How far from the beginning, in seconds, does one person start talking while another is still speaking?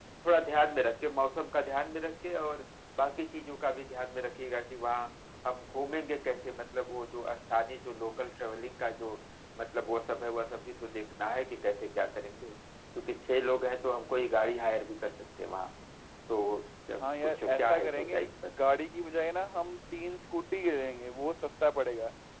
17.0 s

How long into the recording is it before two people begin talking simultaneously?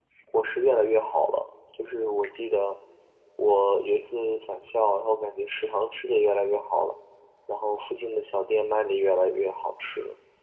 none

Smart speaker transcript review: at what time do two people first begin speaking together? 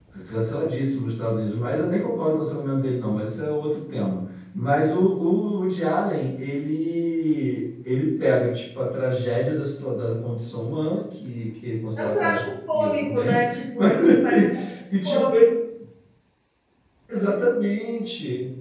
12.0 s

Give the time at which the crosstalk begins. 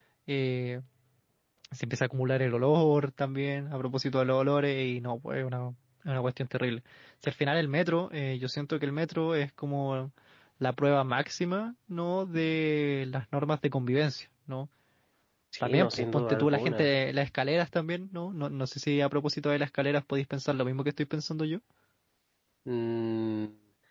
15.6 s

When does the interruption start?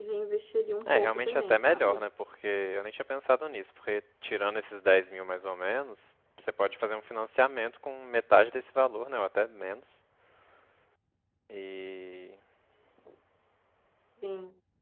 0.8 s

